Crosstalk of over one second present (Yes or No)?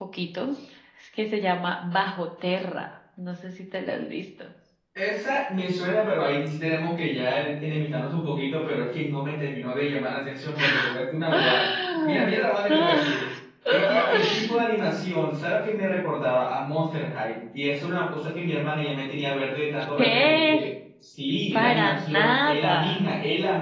Yes